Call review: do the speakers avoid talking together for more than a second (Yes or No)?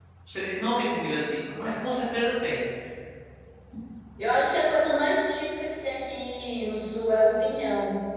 Yes